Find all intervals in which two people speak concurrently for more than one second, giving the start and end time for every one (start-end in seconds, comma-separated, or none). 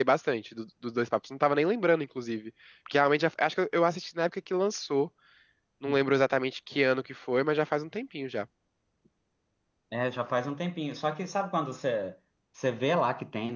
none